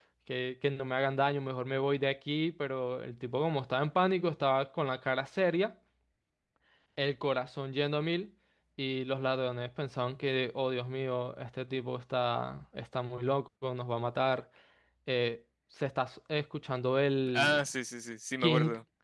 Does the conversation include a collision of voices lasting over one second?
No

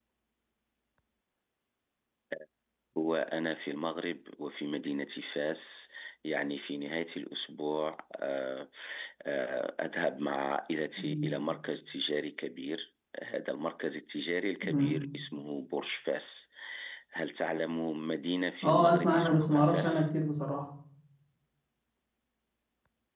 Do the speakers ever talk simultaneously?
Yes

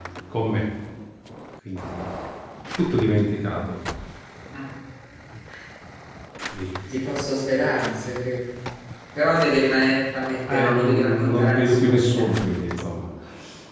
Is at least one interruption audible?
Yes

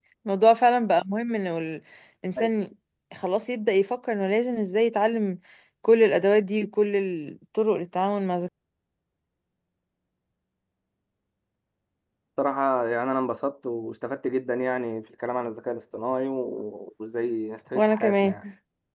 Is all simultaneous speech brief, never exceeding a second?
Yes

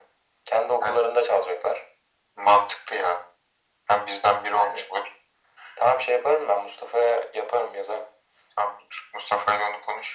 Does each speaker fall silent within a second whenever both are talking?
Yes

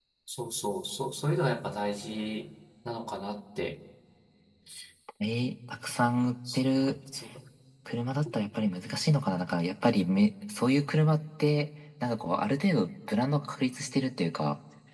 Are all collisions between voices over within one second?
Yes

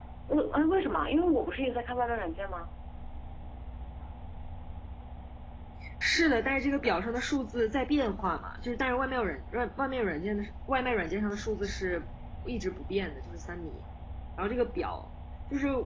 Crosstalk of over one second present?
No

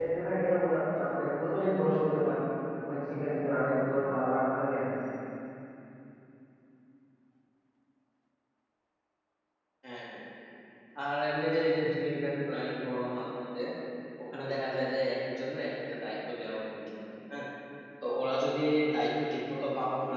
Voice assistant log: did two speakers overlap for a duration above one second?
No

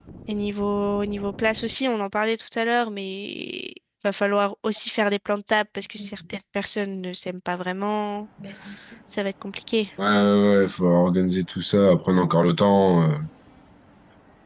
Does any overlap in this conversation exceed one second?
No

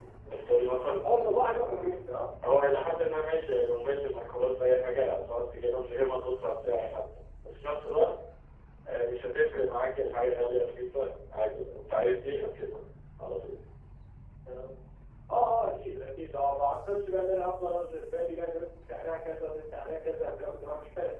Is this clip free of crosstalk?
Yes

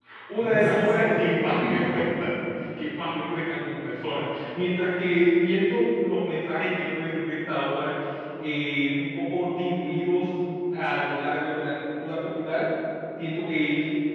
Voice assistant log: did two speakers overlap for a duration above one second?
Yes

